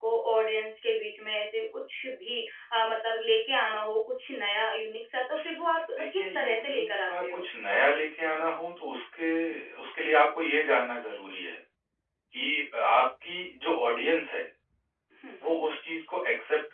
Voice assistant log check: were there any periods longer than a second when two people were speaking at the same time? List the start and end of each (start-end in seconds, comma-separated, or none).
6.0-7.4